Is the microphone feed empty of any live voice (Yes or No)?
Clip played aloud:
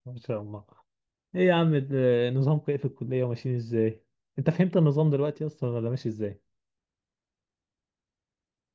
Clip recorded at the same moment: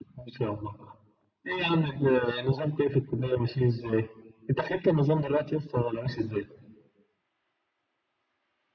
Yes